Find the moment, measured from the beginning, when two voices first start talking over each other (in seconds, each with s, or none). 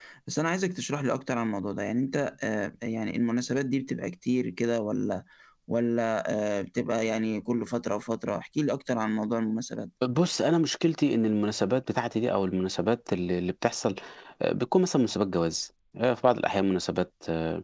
none